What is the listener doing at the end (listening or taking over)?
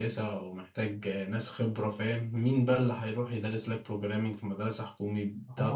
taking over